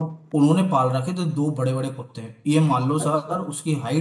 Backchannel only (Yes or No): Yes